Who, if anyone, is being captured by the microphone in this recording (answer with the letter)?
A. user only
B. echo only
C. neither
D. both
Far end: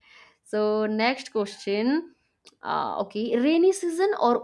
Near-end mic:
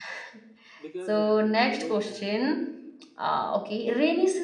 D